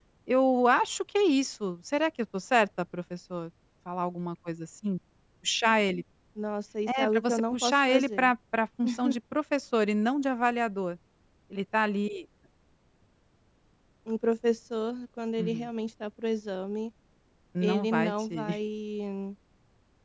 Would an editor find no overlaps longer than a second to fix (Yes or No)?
No